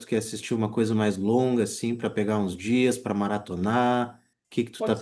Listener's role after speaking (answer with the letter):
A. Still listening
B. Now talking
B